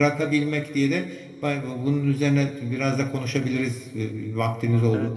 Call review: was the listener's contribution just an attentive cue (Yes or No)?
No